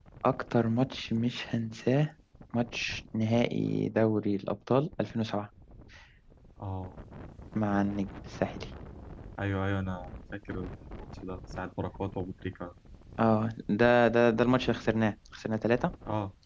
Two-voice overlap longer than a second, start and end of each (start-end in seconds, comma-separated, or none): none